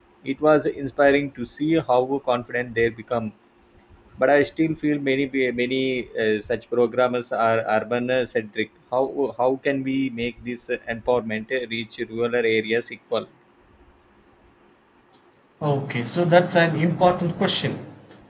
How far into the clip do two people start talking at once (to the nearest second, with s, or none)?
none